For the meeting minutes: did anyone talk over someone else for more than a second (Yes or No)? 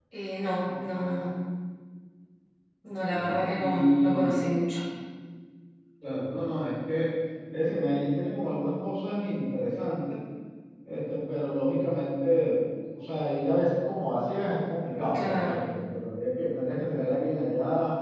Yes